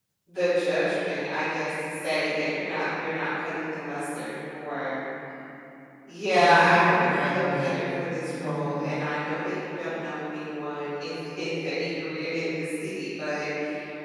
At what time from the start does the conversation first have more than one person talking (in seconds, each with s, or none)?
6.4 s